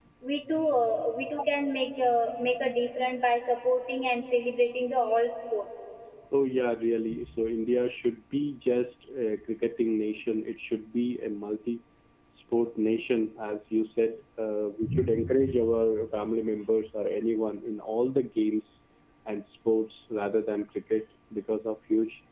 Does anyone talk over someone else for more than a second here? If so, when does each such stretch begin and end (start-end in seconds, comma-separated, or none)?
none